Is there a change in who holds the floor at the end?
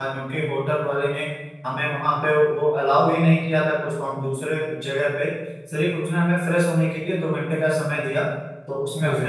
No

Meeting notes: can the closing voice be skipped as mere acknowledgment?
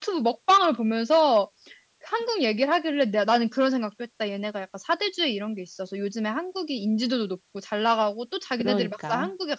Yes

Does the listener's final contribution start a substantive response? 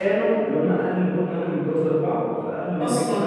No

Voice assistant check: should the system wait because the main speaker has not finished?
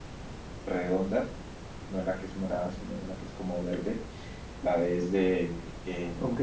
No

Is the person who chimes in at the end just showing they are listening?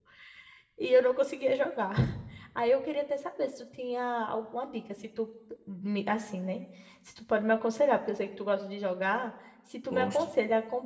Yes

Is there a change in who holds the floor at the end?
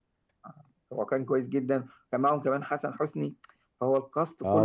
Yes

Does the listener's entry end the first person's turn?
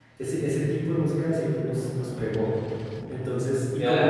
No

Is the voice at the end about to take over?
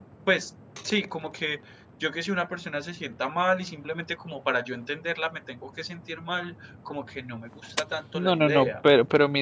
Yes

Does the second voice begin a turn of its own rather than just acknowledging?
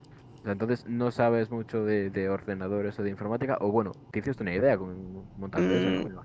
Yes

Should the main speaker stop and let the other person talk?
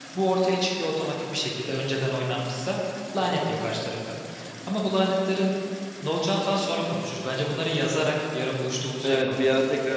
Yes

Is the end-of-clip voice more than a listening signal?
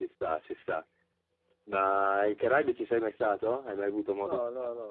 Yes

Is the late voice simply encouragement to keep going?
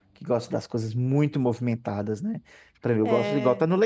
Yes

